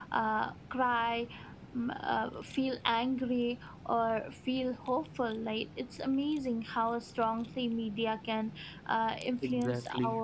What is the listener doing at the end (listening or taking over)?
listening